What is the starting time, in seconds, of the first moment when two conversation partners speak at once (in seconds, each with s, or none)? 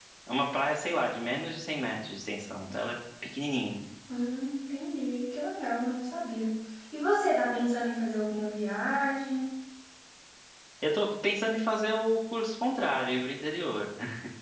none